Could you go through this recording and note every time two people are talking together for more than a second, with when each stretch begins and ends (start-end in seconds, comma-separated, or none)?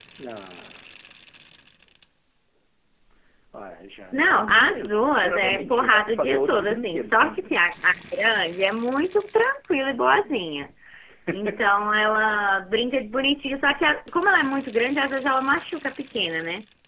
4.1-7.6